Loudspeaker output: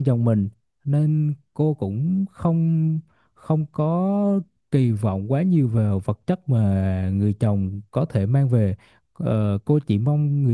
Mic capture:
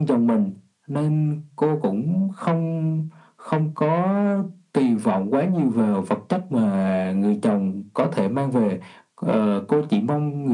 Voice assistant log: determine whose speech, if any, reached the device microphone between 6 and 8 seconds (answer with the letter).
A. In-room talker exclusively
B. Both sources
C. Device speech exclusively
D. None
C